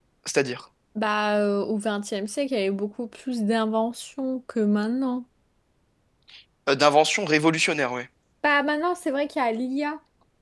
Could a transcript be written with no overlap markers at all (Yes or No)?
Yes